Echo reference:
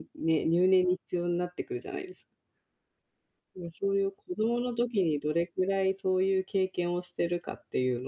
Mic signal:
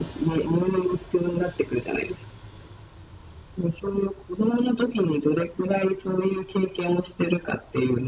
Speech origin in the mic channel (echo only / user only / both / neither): echo only